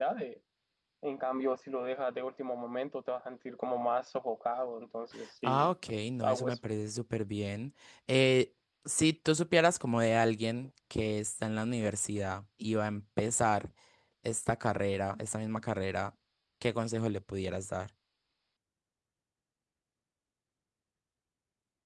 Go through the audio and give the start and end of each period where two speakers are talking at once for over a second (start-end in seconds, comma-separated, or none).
none